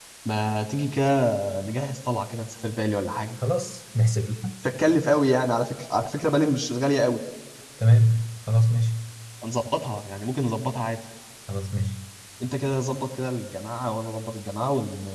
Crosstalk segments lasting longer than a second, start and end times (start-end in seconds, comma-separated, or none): none